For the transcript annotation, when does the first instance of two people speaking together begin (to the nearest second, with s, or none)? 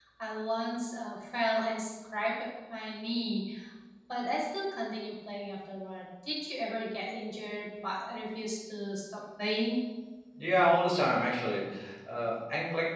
none